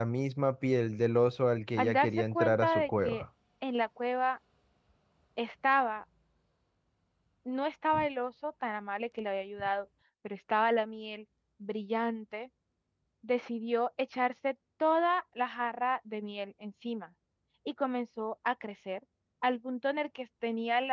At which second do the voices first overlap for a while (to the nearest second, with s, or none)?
2 s